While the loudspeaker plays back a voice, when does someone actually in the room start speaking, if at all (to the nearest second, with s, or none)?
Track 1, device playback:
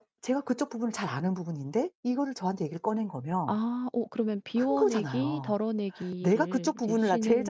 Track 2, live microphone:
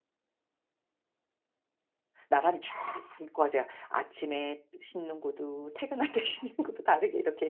2 s